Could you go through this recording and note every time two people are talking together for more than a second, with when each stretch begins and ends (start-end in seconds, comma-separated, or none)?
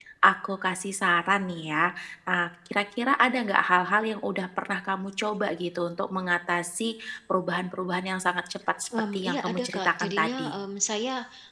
9.1-10.6